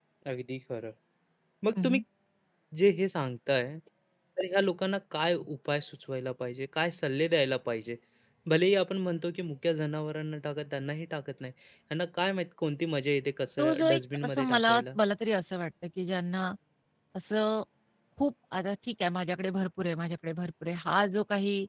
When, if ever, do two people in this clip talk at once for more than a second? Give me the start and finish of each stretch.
13.6-14.8

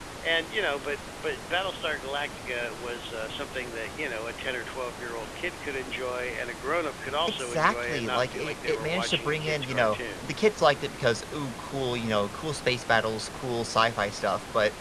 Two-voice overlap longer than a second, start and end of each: 7.4-10.2

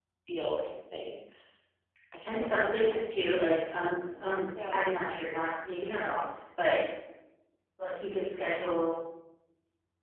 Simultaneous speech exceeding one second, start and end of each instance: 2.2-3.5

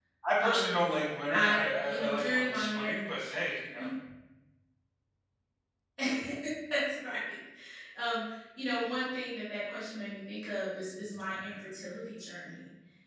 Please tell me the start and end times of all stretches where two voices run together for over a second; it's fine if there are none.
1.3-3.3

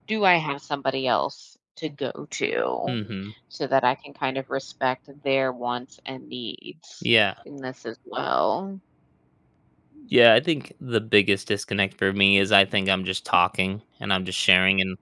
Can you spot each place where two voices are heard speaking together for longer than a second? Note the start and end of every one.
none

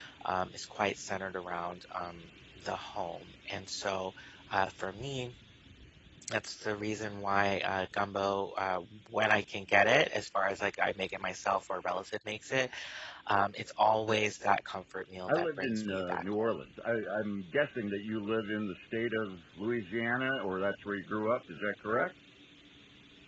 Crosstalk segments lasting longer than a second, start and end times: 15.3-16.5

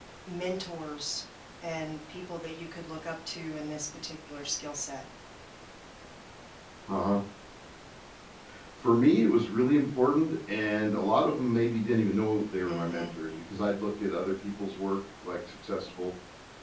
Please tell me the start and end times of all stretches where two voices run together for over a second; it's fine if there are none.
none

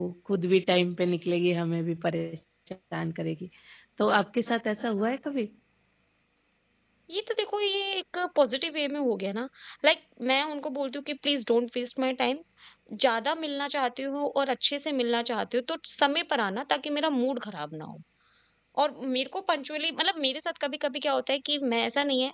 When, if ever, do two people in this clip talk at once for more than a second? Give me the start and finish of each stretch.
none

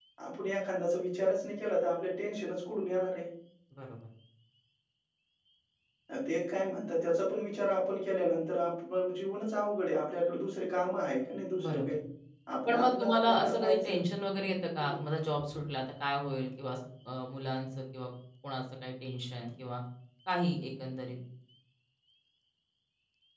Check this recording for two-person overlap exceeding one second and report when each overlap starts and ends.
12.7-14.0

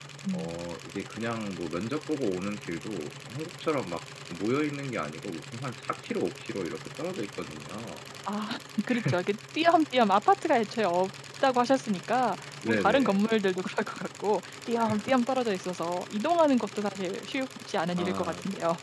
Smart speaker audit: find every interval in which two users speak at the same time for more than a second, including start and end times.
none

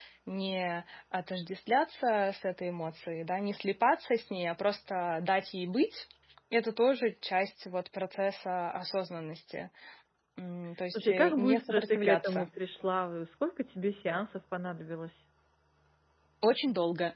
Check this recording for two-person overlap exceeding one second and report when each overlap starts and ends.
10.9-12.5

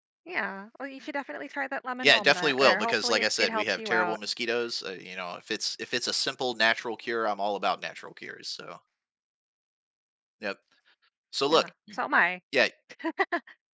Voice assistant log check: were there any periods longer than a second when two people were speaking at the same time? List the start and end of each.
2.0-4.2

